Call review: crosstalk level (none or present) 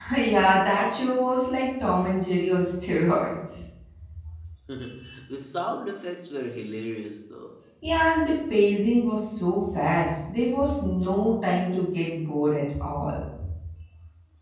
none